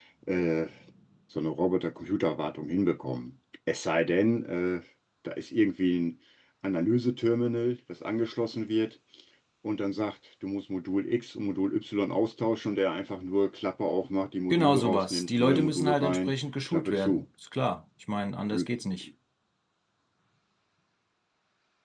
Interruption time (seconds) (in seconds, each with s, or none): 14.5 s